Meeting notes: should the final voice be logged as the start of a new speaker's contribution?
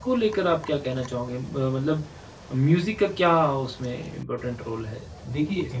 Yes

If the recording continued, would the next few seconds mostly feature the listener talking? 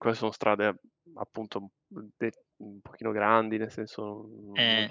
No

